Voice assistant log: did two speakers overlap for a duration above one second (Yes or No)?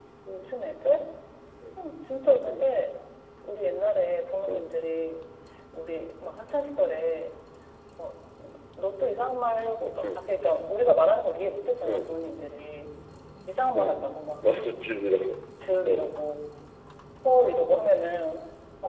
No